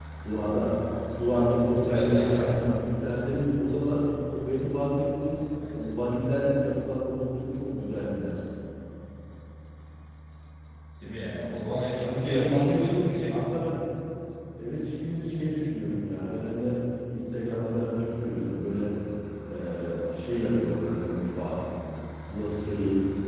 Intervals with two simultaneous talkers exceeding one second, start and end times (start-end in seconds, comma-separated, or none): 1.2-2.7, 12.0-13.4